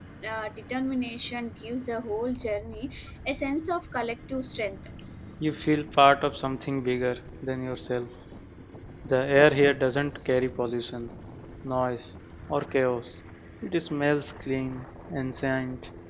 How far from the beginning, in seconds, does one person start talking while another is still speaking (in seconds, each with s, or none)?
none